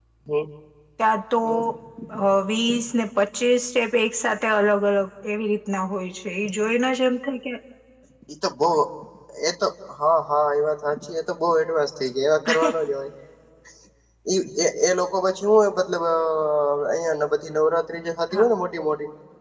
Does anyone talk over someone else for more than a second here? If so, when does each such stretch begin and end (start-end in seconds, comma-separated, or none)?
none